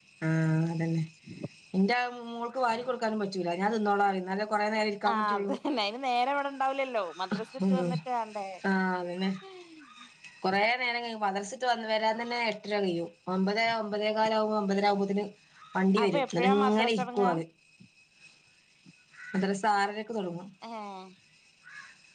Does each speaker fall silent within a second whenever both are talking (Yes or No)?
No